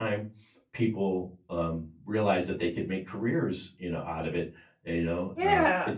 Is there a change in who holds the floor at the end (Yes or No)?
No